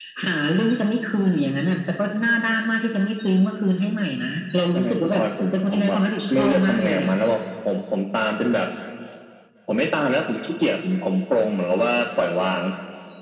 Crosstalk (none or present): present